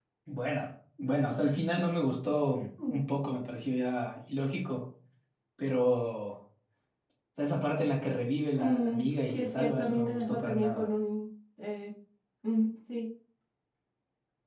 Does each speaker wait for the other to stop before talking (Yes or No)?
No